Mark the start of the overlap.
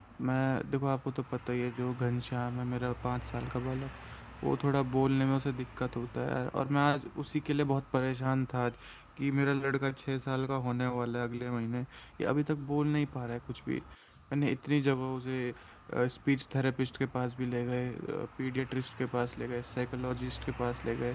none

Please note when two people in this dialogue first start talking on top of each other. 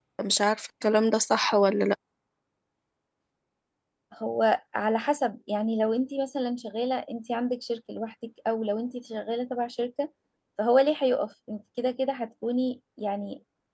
none

